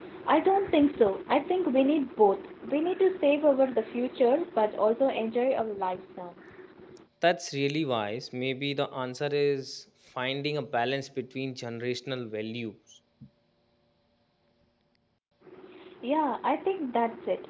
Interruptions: none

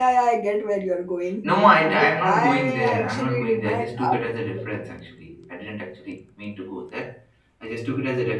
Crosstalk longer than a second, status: present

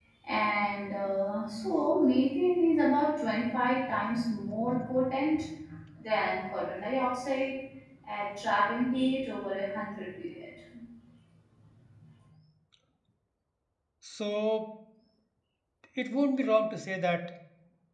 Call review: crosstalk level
none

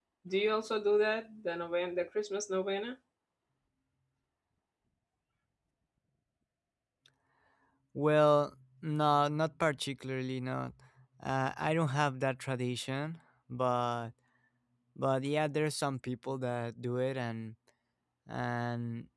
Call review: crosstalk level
none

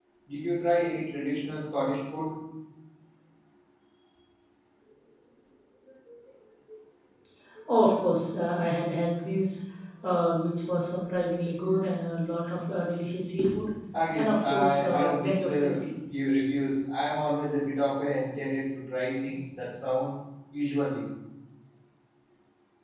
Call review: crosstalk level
present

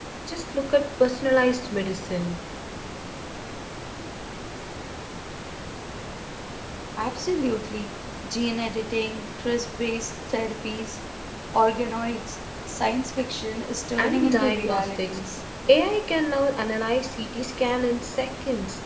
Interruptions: present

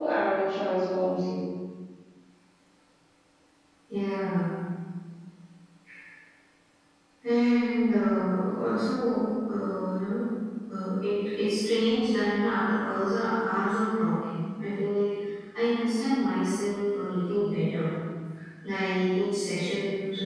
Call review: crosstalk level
none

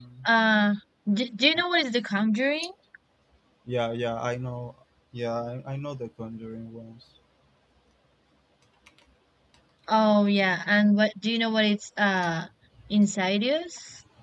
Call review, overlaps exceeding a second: none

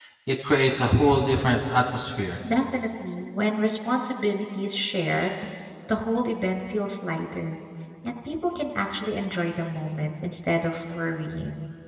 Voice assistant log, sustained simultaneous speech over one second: none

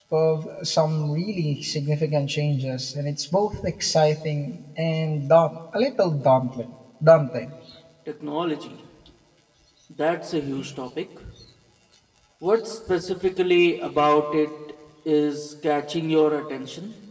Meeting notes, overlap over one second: none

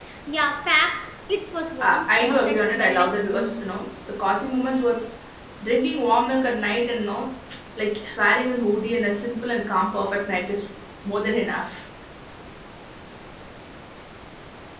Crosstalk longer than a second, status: present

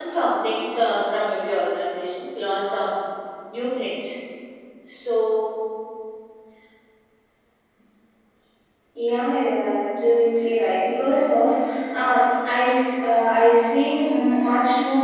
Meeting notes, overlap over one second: none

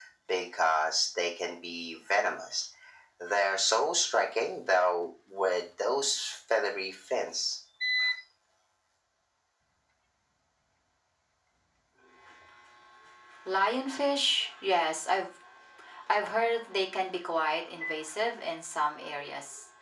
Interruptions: none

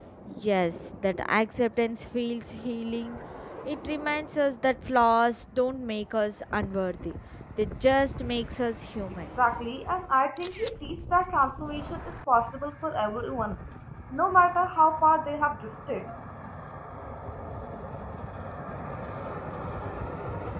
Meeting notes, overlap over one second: none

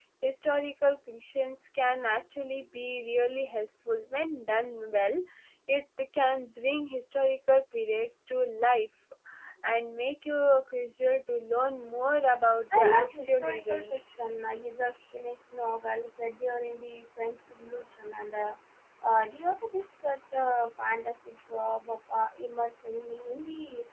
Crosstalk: present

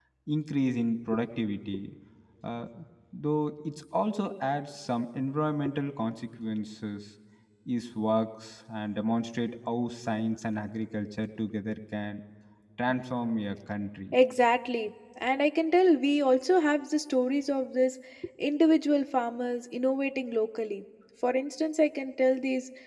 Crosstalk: none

